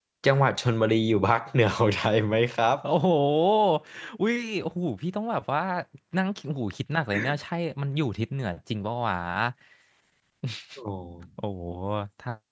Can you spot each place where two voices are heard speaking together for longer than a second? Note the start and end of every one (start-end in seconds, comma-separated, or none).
none